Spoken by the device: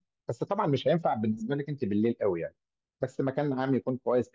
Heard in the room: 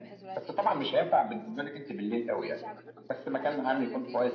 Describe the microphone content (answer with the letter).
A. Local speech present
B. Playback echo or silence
A